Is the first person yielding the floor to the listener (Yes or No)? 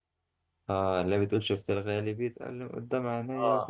Yes